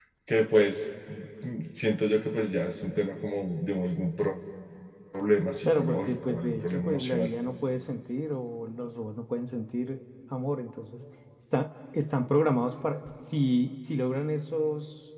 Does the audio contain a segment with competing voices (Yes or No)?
Yes